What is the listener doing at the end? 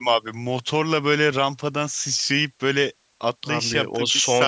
taking over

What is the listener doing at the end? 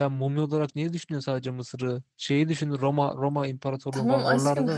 taking over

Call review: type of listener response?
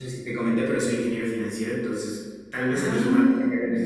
listening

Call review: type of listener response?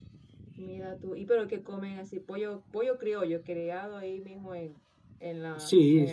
taking over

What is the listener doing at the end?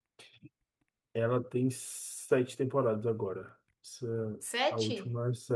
listening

